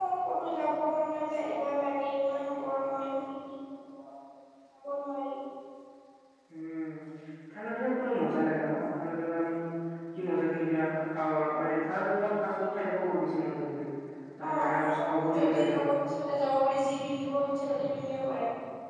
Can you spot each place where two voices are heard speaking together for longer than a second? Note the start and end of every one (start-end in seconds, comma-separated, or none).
14.5-15.8